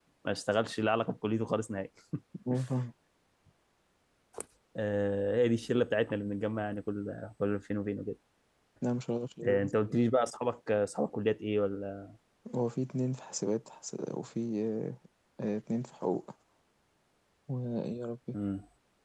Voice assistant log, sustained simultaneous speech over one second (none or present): none